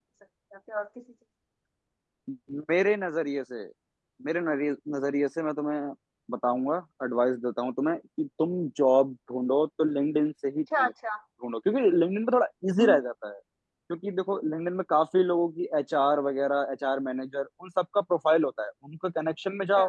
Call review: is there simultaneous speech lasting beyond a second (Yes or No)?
No